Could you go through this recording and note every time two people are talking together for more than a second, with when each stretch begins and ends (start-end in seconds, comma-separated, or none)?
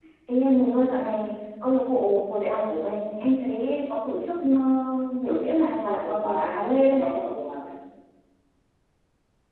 5.8-7.2